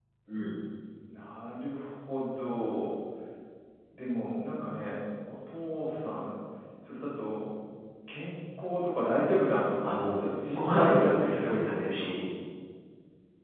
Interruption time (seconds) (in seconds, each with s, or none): 9.8 s